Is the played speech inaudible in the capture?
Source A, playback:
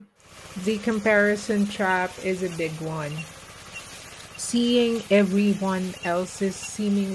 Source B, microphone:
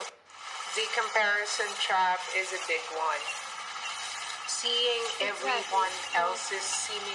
No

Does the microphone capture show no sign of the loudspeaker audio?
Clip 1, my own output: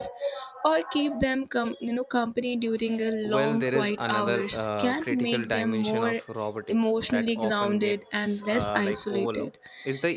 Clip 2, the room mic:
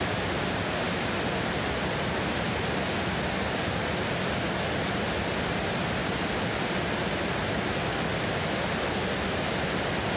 Yes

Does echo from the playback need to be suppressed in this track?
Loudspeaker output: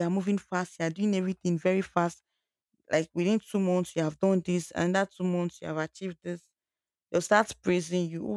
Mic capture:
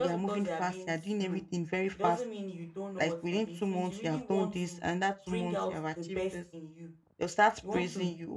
Yes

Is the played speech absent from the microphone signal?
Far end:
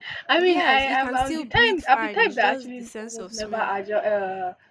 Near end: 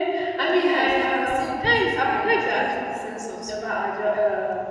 No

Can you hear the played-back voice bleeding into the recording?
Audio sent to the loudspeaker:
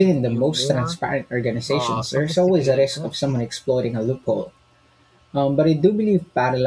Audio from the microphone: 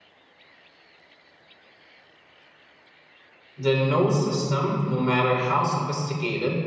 No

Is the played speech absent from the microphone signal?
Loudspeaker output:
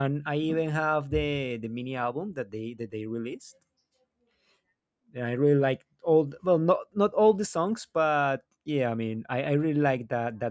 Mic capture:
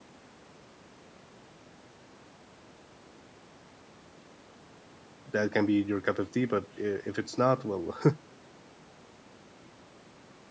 Yes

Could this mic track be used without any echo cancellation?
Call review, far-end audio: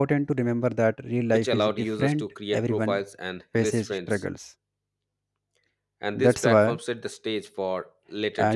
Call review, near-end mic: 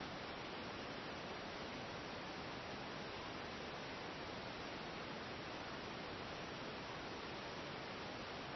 Yes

